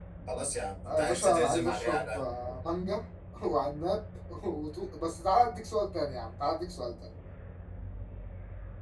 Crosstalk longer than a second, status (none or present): present